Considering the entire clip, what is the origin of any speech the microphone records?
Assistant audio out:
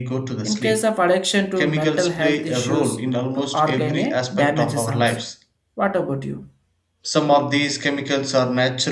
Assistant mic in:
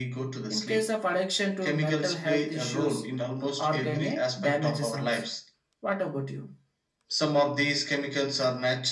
echo only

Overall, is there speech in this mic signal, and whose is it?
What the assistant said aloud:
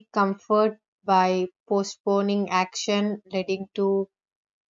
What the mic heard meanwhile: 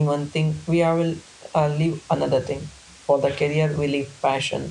user only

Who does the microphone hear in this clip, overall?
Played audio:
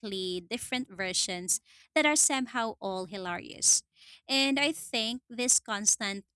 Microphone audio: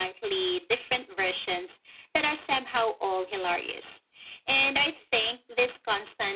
echo only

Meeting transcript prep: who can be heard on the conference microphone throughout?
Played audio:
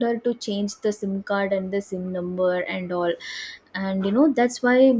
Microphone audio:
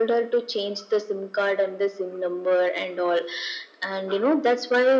echo only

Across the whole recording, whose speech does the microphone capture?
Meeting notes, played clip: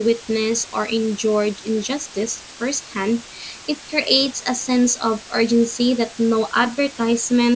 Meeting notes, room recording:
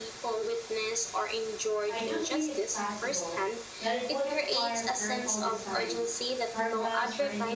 both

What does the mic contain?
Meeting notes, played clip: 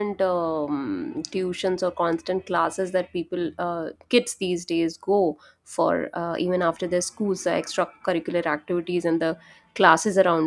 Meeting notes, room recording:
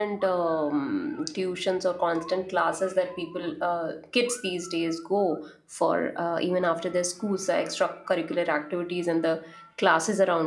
echo only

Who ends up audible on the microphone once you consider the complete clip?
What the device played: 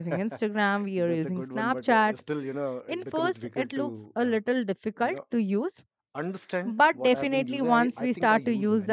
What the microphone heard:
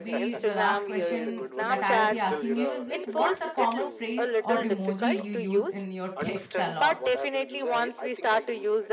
both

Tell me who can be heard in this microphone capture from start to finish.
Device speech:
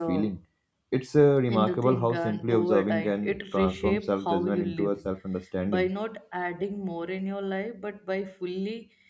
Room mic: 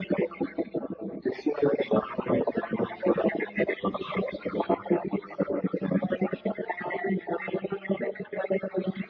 echo only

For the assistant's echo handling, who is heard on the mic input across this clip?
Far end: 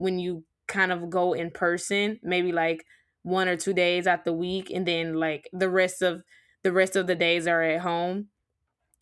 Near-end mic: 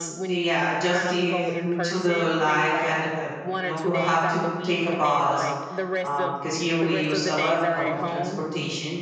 both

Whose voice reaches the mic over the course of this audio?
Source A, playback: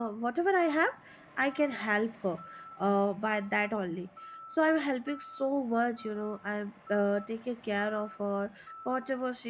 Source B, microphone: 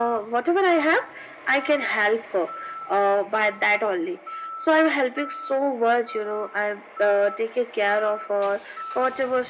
echo only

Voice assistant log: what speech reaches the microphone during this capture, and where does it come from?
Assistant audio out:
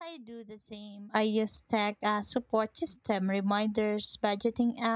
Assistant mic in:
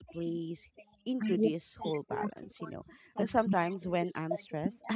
both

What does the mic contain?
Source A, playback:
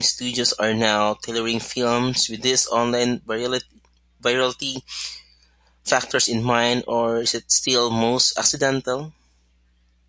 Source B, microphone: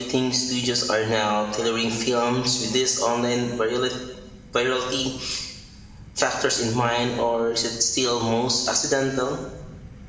echo only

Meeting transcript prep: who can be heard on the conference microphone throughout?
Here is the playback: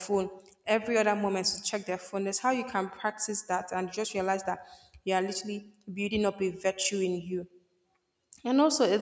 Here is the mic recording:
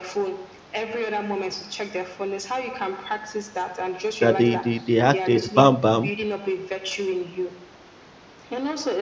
both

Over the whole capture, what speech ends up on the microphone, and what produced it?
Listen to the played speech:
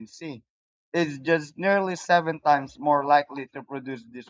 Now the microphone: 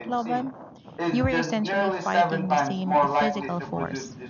both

